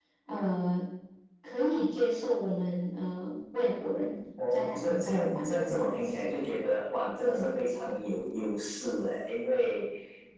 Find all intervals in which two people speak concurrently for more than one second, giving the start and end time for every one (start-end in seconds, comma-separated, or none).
4.5-6.3